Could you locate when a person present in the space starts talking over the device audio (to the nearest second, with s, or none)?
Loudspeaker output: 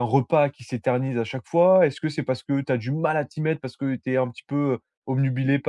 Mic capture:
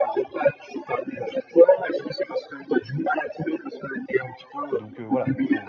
5 s